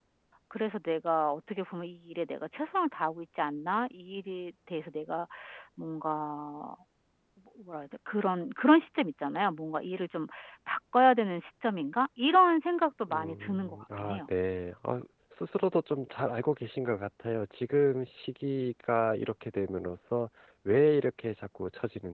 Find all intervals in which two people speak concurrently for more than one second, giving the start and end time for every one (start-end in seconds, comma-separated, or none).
13.1-14.3